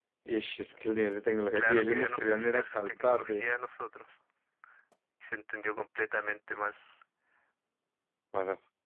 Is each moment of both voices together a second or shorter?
No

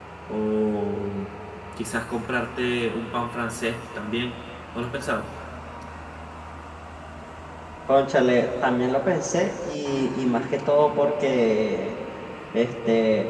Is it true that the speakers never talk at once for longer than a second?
Yes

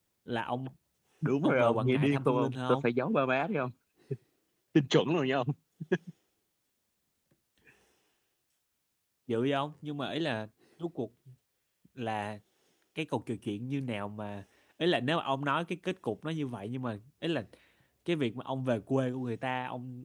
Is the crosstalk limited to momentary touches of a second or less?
No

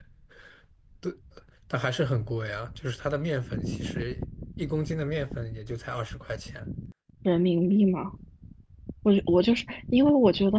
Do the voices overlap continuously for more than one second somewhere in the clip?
No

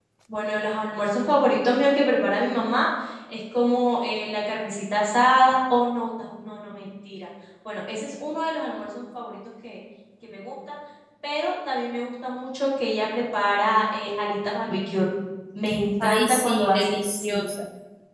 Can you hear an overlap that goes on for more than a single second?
Yes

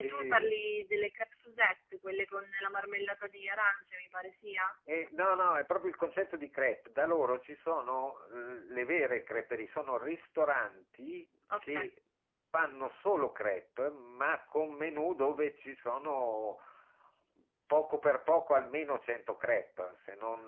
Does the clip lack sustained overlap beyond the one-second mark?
Yes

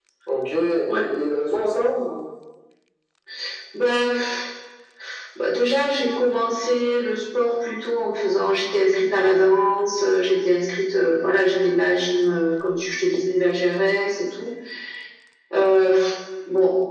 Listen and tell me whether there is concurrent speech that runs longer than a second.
No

